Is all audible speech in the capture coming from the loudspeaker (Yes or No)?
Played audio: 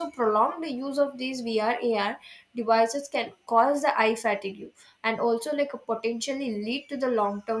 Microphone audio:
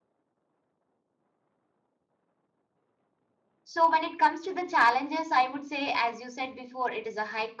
No